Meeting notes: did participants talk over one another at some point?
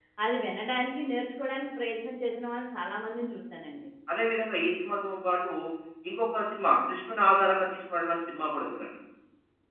No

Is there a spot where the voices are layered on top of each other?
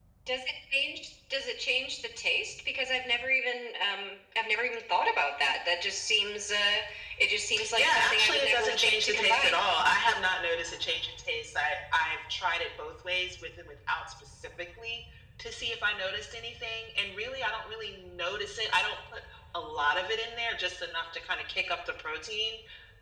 Yes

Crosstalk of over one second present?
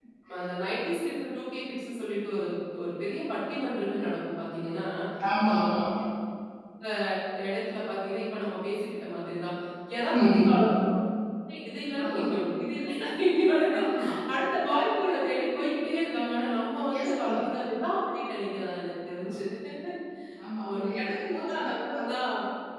Yes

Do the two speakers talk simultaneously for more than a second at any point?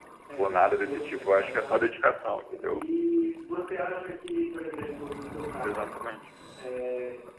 Yes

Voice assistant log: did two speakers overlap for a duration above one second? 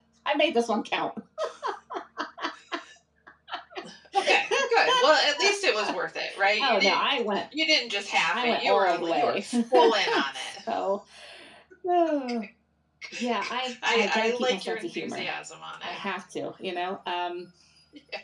Yes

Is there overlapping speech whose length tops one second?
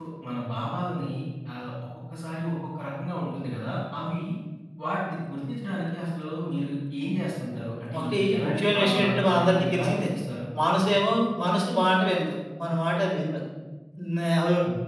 Yes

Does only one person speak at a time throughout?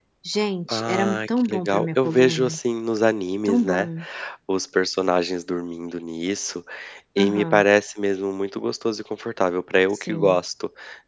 No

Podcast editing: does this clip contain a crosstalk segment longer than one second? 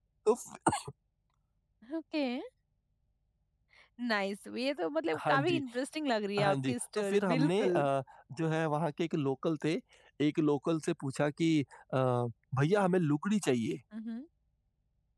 Yes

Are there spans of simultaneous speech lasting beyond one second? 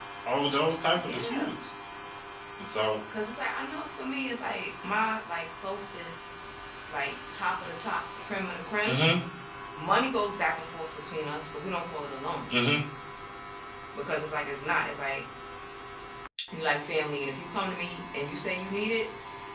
No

